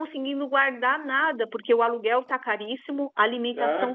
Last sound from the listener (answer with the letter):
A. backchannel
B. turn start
B